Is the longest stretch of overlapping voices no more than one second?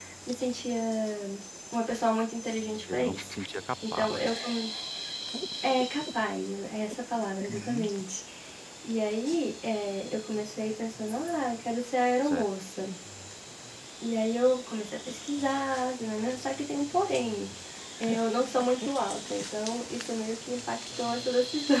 Yes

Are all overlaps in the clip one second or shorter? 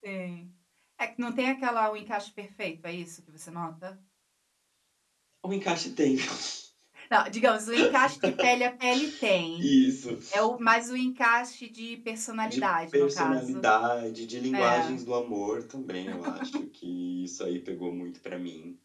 No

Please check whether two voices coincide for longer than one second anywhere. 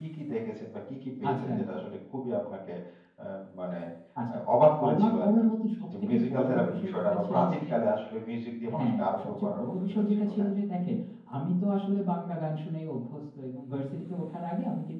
Yes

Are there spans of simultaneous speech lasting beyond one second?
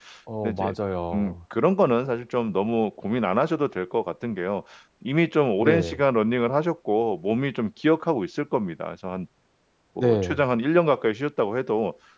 No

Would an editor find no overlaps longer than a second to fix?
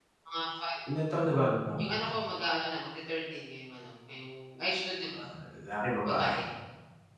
Yes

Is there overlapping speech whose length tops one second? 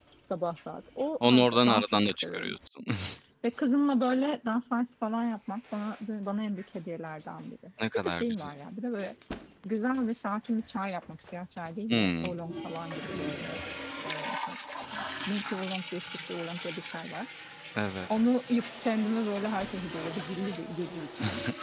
Yes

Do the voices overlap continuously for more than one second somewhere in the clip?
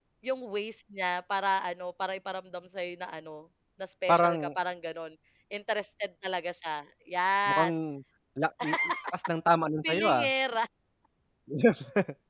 No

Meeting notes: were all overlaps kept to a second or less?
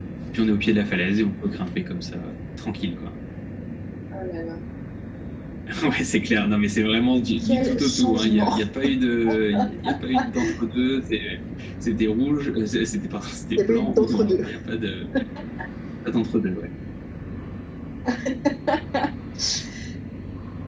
No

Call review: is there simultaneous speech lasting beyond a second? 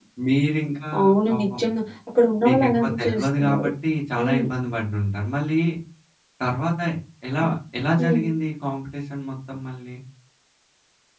Yes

